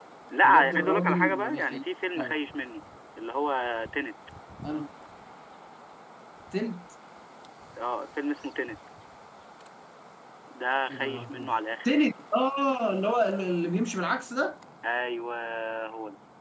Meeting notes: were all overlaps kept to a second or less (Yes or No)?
No